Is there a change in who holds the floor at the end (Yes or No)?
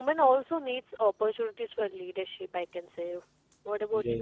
Yes